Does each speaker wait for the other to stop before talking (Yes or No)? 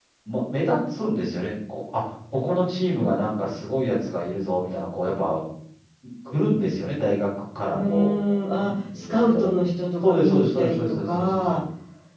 No